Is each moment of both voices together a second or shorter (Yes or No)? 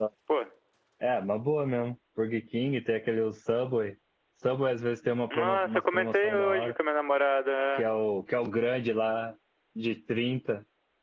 No